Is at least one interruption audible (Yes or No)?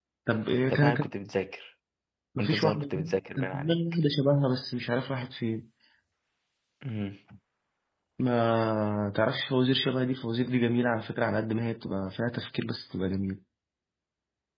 Yes